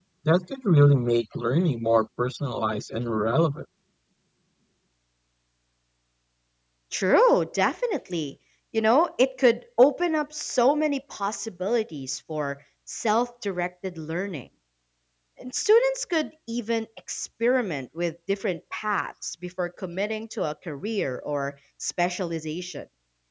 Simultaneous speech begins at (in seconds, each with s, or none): none